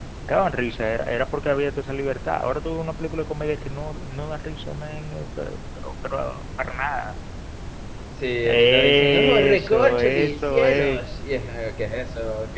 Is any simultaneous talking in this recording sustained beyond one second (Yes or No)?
Yes